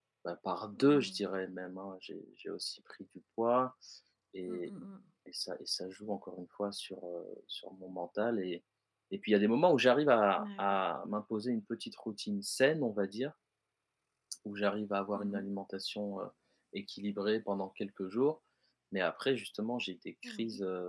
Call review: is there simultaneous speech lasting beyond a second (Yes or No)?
No